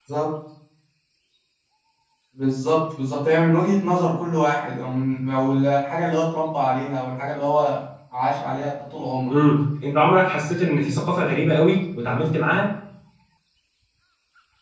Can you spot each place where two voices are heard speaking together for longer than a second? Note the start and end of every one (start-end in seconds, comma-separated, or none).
none